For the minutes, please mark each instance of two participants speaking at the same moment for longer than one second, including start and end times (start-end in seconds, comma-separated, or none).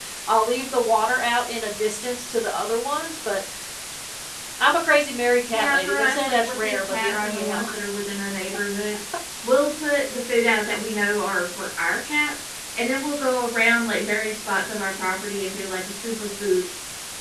5.5-7.7